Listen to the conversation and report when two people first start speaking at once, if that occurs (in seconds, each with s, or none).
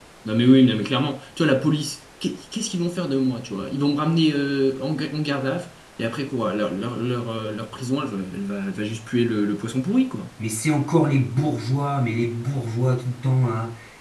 none